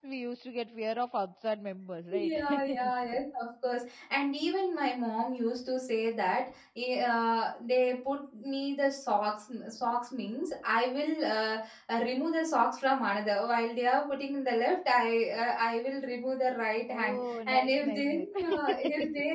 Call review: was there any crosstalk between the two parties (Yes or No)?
Yes